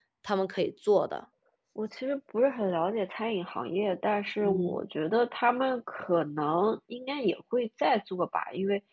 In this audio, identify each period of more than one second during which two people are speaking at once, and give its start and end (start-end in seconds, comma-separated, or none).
none